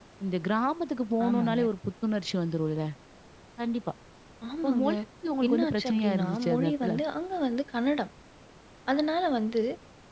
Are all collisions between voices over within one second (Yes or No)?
No